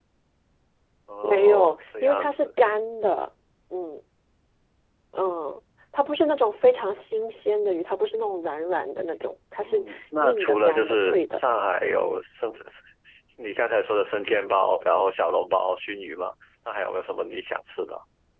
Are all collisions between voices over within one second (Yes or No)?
No